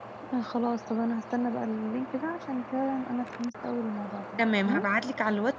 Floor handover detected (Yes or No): Yes